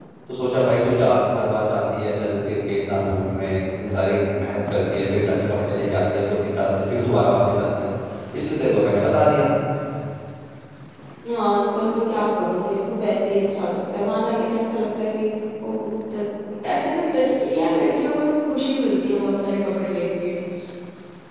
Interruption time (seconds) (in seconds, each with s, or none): none